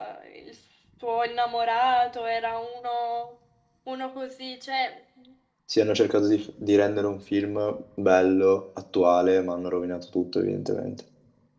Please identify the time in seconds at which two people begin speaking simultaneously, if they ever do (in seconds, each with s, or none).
none